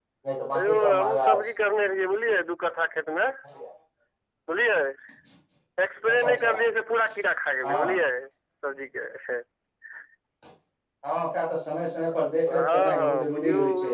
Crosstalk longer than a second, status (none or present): present